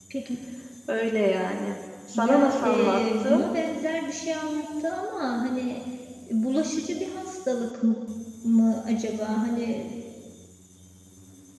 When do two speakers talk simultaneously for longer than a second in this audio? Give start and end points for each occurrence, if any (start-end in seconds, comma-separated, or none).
2.1-3.5